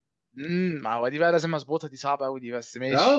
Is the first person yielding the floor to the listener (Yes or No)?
Yes